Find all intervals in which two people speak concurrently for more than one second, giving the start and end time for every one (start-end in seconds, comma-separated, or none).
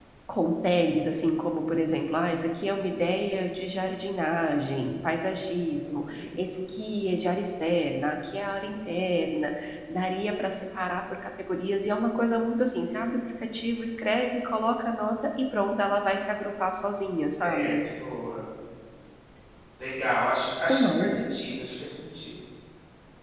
none